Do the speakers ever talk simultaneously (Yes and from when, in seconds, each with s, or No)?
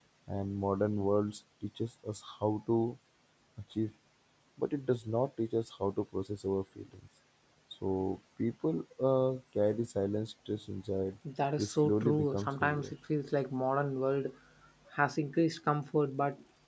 Yes, from 11.6 s